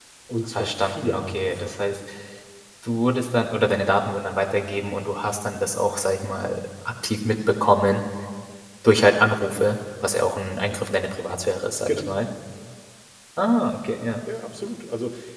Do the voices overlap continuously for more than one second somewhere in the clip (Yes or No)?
Yes